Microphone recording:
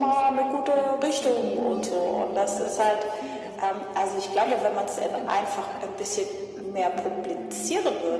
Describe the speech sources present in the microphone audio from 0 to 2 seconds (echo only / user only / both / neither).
both